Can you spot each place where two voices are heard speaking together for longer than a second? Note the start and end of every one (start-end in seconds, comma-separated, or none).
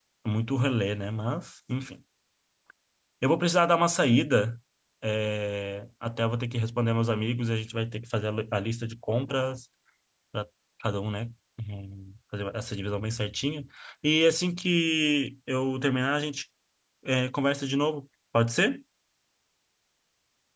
none